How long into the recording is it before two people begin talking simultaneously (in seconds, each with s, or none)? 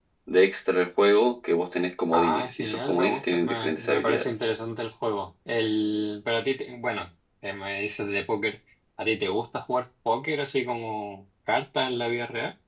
2.1 s